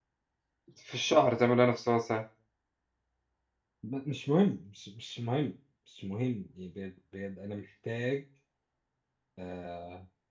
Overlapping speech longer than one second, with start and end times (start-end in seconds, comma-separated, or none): none